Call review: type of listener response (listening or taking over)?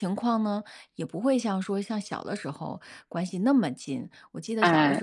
listening